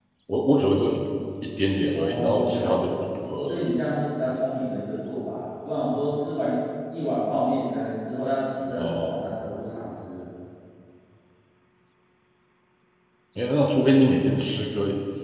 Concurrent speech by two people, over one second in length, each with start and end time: 1.9-3.7

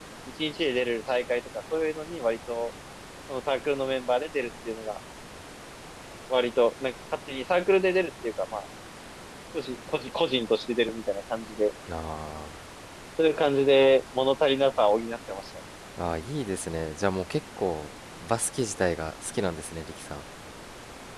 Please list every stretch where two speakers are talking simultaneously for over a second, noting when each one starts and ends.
none

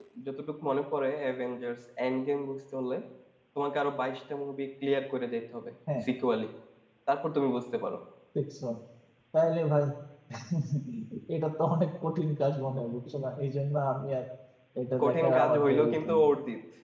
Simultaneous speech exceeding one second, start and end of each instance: 15.0-16.2

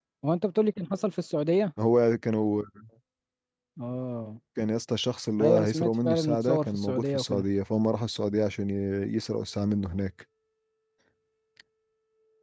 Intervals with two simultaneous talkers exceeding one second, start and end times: 5.4-7.4

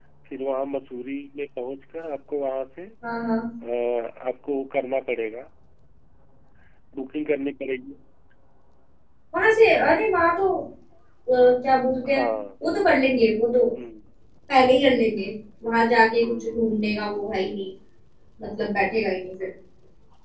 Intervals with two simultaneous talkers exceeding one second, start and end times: none

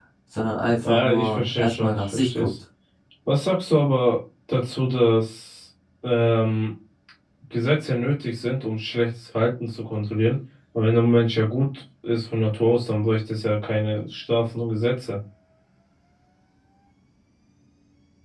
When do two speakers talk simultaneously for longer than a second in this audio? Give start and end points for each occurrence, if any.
0.8-2.5

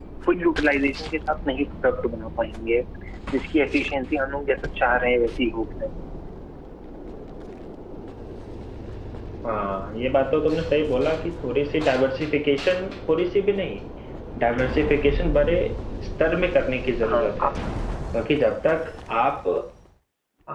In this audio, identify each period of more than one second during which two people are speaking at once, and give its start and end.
none

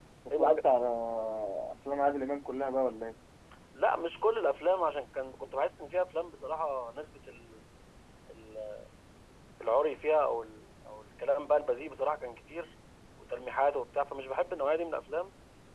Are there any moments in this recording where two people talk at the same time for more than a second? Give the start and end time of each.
none

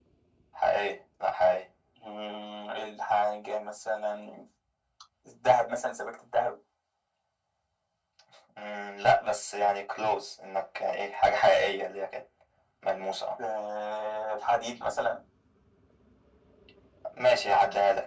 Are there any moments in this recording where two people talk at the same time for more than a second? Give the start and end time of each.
none

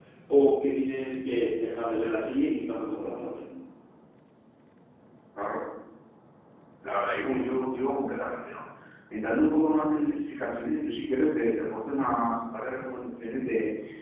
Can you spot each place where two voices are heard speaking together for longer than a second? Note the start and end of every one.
none

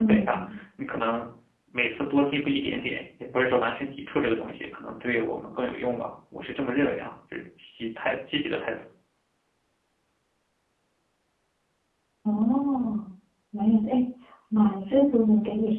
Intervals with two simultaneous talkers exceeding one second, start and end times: none

